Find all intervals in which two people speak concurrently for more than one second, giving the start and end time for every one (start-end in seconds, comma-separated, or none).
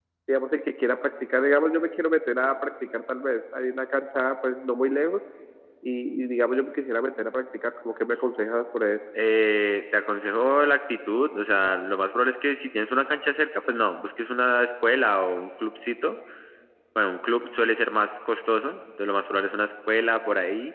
none